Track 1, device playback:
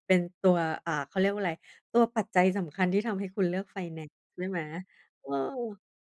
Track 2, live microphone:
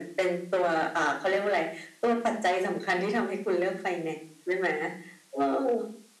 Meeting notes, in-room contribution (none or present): none